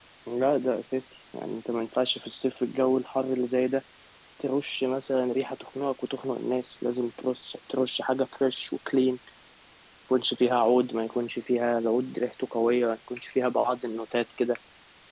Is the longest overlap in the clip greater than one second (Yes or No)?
No